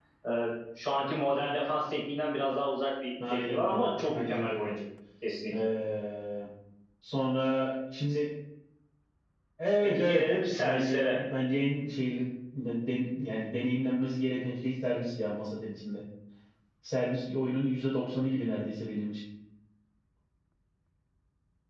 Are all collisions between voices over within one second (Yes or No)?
No